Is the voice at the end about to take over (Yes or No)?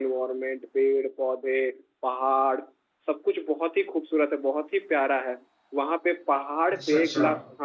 No